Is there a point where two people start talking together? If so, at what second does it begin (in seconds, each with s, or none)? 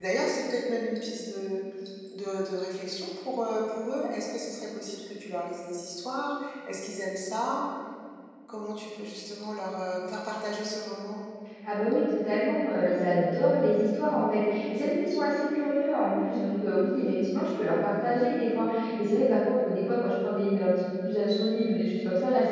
none